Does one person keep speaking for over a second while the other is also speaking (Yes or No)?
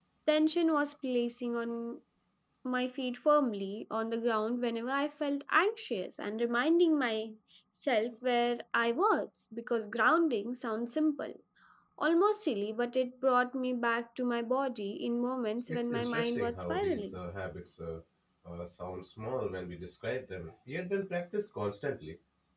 Yes